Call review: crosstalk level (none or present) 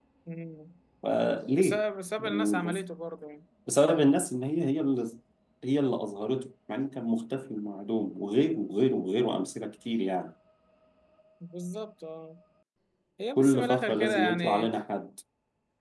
present